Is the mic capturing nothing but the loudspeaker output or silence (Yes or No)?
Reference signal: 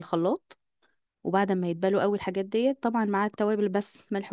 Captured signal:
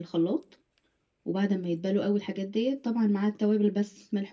Yes